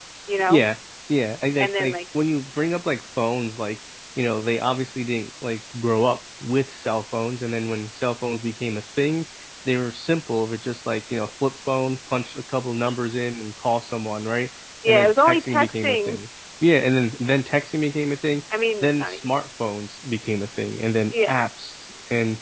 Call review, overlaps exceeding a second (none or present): present